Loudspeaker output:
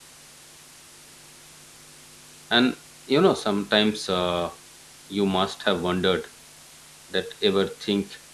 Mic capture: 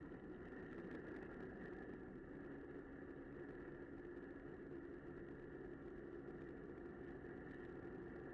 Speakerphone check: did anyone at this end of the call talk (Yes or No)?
No